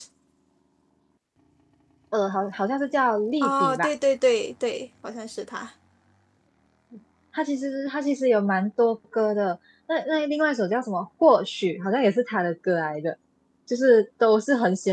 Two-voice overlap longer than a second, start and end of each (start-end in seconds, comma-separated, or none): none